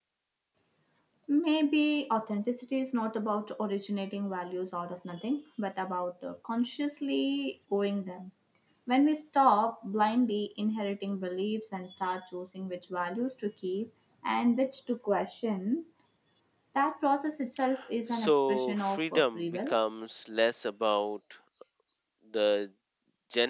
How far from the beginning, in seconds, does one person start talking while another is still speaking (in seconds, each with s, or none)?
18.1 s